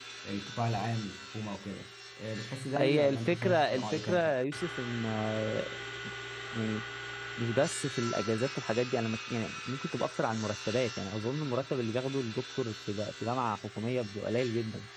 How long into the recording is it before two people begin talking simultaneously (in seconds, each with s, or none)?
2.8 s